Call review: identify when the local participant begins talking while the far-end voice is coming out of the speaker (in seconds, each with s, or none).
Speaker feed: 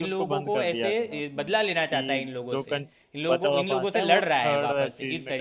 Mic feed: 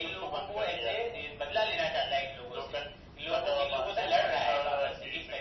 none